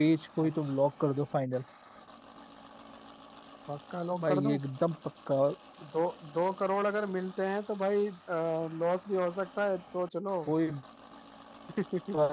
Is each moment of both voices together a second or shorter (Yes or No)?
Yes